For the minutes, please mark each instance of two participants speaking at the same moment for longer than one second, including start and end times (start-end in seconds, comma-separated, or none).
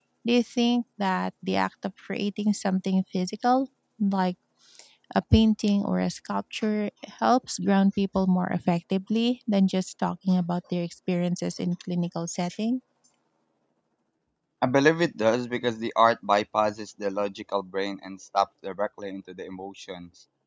none